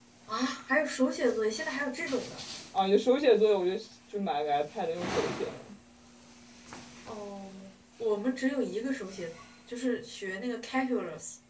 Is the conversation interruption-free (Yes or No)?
Yes